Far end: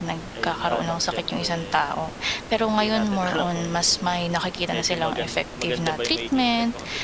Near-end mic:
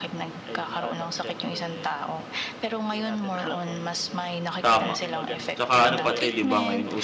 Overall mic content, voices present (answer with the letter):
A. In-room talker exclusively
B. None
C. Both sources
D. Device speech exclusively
C